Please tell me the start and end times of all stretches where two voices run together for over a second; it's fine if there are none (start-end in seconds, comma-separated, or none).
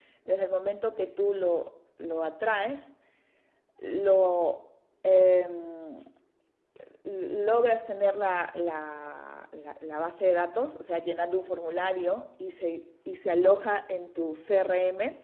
none